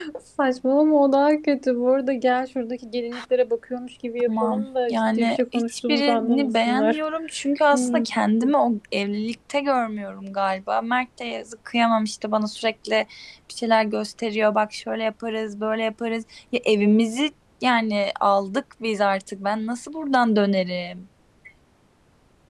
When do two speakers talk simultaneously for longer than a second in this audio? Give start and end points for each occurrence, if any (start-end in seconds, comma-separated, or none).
4.3-7.0